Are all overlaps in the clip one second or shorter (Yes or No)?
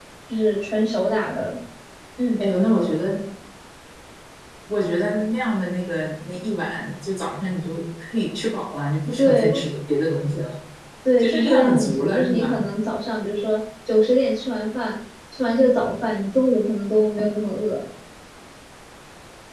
No